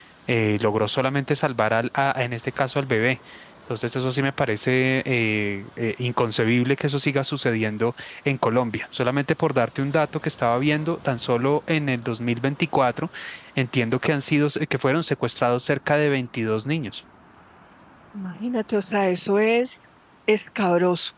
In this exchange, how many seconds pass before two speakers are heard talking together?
none

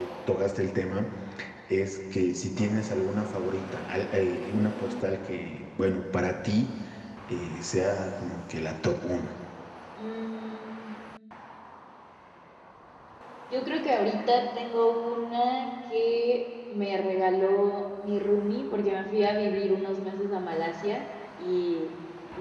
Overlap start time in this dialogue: none

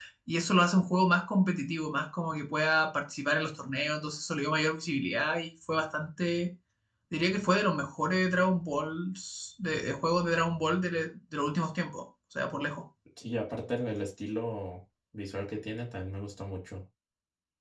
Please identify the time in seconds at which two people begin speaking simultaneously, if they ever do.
none

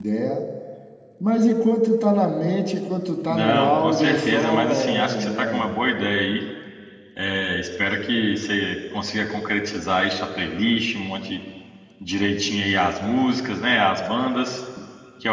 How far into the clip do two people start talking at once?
3 s

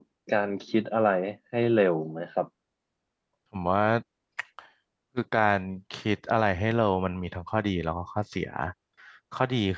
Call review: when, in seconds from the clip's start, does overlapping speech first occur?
none

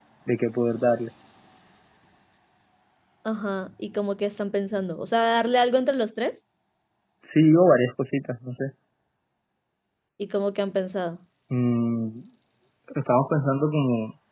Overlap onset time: none

